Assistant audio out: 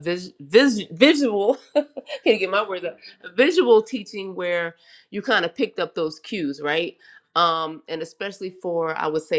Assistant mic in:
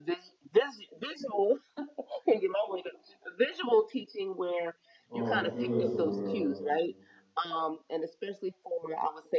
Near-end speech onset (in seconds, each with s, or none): 5.1 s